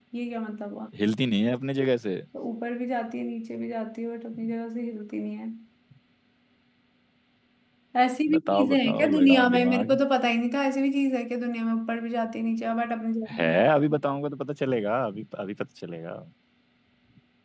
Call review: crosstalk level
present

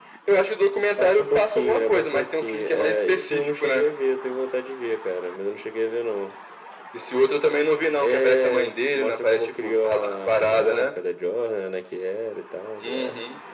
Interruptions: present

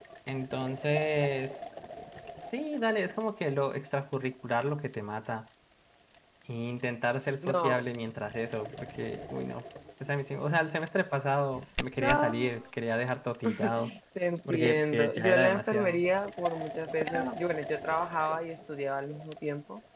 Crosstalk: present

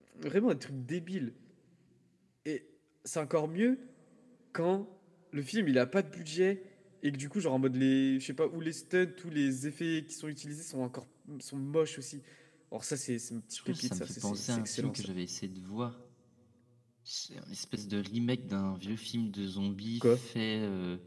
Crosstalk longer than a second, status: present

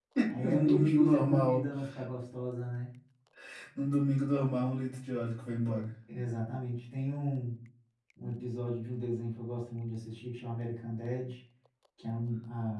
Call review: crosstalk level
present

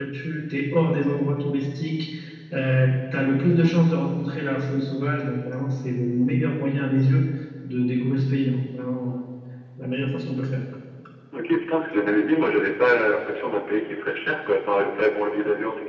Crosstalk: none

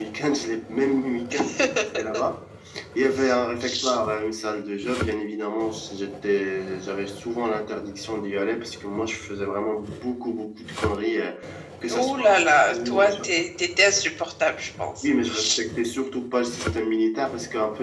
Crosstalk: present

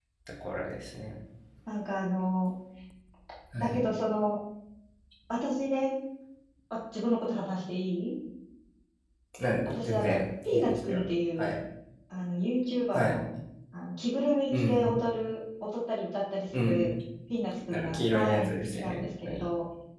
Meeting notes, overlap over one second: present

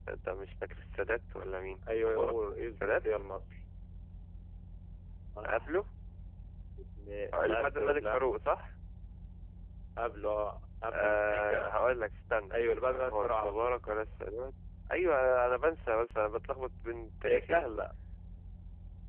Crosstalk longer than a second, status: present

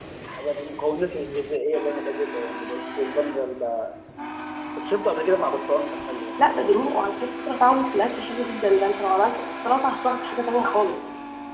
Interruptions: none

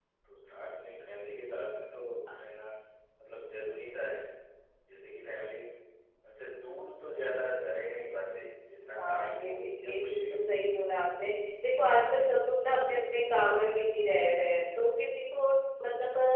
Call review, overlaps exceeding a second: present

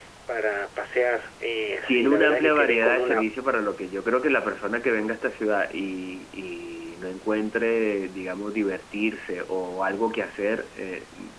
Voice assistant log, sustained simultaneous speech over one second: present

